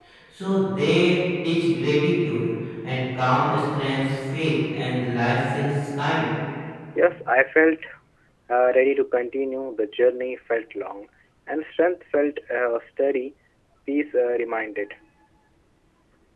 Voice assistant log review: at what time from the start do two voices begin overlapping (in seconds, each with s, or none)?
none